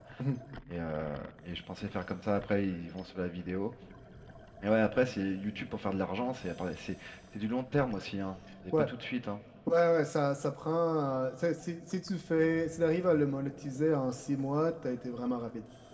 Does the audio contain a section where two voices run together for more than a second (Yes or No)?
No